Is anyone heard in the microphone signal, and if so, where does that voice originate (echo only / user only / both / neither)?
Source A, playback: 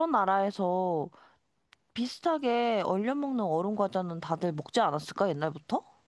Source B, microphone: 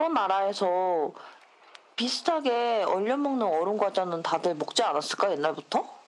echo only